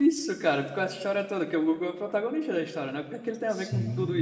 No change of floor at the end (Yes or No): No